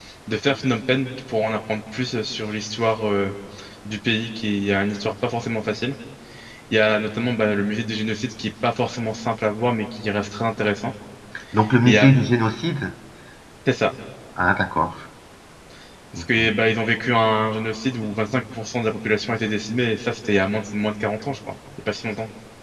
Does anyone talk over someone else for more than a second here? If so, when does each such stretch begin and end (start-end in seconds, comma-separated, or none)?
none